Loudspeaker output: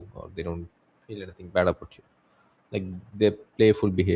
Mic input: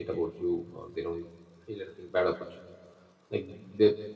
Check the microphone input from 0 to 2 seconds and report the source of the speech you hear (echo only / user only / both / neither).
echo only